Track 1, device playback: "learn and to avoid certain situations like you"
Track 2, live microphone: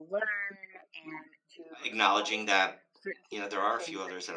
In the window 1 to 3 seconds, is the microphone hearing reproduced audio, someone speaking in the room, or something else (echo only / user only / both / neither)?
both